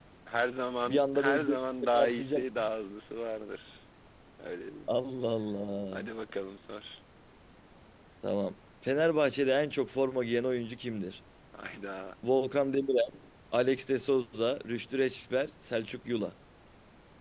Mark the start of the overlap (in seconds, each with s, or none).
0.9 s